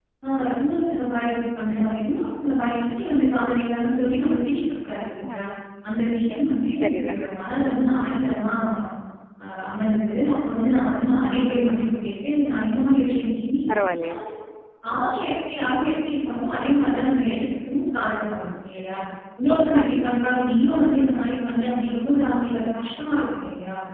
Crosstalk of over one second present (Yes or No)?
No